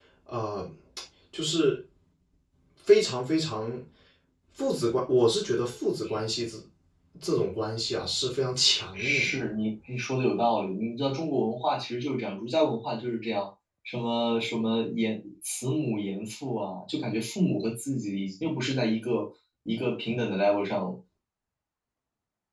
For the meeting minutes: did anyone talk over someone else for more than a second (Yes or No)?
No